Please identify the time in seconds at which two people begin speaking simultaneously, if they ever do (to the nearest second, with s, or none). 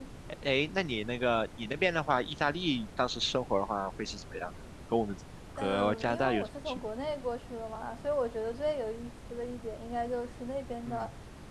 6 s